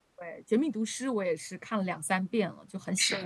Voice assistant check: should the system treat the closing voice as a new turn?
Yes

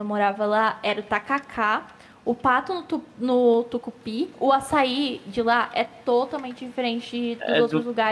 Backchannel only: No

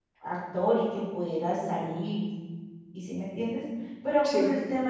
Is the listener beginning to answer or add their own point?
No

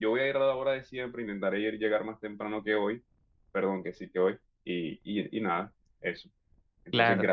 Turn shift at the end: Yes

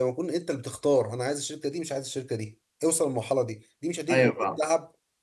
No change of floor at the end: Yes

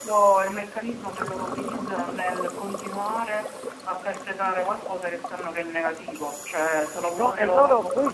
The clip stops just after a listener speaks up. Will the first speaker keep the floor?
No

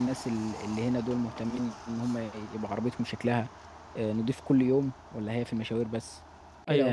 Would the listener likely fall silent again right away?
No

